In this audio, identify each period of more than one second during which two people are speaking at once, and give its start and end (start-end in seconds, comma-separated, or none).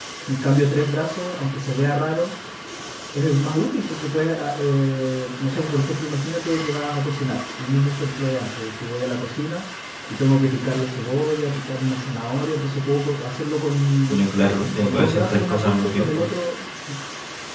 14.8-16.2